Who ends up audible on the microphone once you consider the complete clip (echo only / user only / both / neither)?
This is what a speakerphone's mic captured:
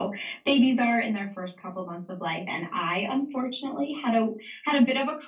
echo only